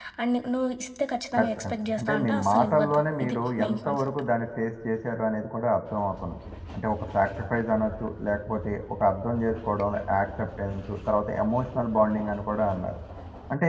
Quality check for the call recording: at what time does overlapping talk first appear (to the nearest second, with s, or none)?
1 s